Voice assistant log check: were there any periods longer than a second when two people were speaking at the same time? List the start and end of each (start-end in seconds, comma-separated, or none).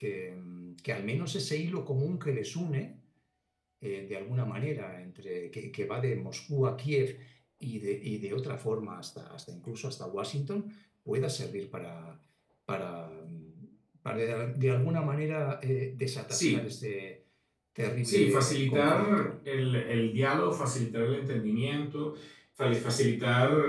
18.0-19.3